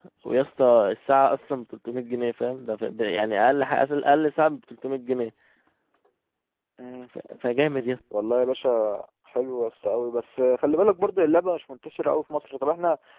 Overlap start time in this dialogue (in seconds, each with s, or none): none